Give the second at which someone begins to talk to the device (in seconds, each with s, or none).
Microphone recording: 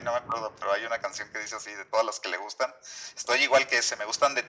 none